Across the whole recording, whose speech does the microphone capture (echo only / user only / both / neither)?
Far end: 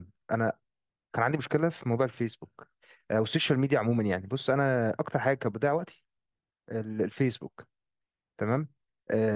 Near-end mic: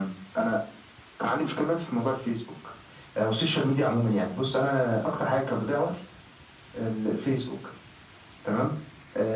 echo only